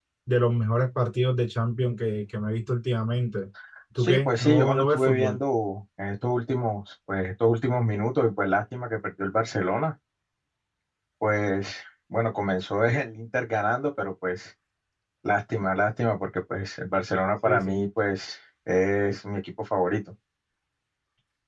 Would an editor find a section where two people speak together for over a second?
Yes, from 4.0 s

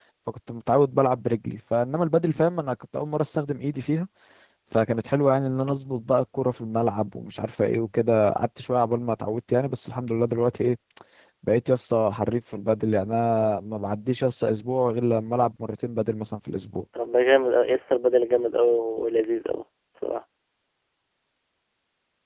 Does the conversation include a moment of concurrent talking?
No

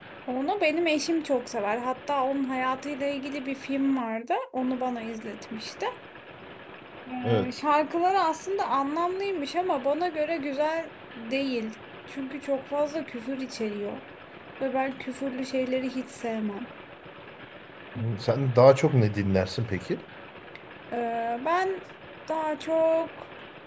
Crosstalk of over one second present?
No

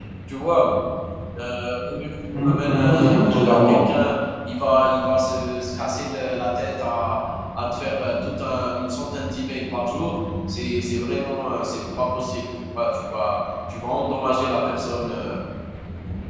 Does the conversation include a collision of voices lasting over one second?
Yes, from 2.3 s

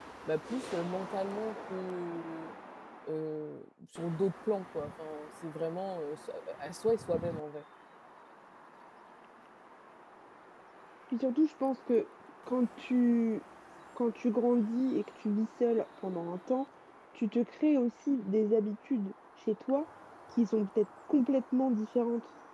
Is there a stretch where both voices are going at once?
No

